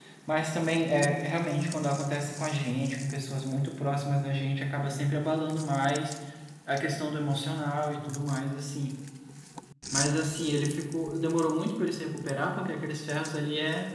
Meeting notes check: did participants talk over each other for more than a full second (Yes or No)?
No